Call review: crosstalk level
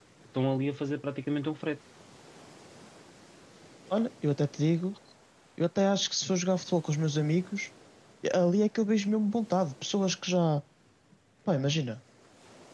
none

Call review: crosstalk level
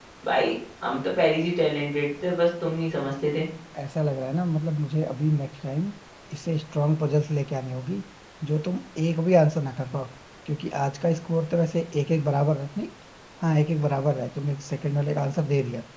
none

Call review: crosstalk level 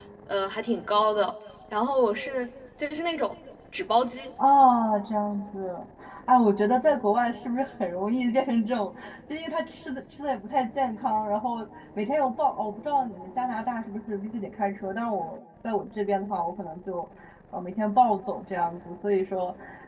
none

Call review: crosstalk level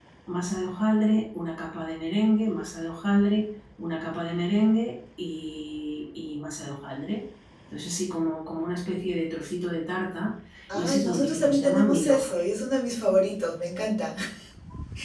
present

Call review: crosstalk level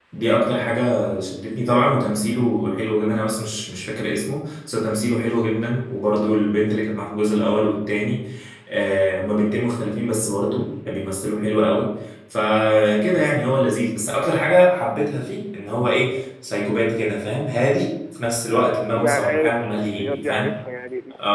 present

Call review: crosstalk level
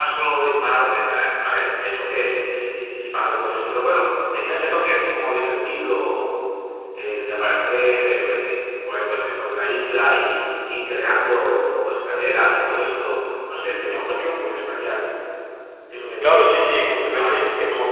present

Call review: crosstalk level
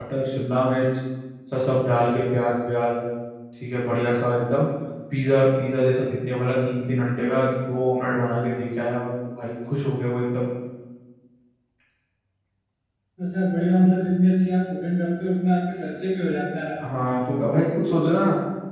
none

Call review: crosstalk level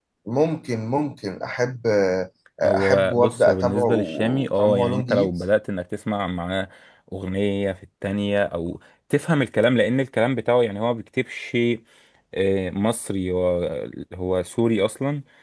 present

